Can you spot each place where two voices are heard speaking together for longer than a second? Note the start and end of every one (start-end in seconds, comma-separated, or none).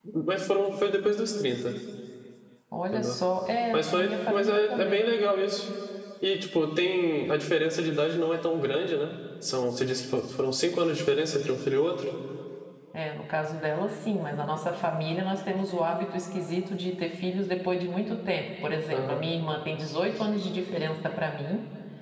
3.7-5.1